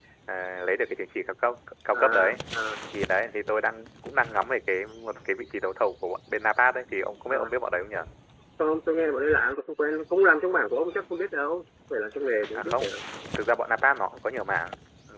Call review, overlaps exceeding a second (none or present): none